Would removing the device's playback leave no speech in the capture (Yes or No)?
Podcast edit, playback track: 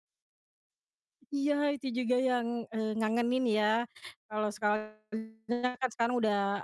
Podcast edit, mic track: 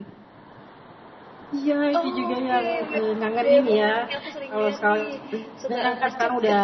No